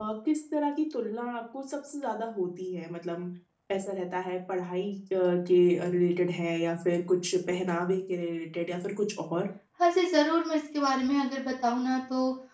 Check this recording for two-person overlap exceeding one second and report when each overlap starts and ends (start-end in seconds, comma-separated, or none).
none